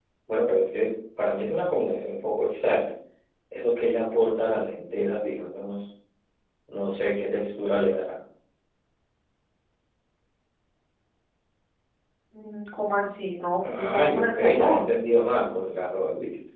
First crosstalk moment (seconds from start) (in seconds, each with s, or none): 13.6 s